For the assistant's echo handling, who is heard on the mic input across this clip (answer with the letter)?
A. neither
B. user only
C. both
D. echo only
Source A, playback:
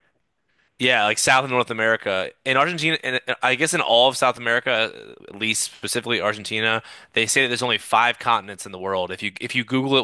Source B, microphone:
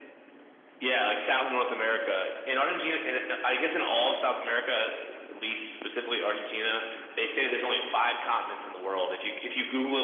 D